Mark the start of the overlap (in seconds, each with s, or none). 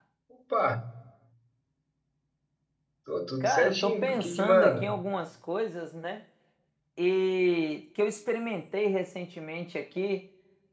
3.4 s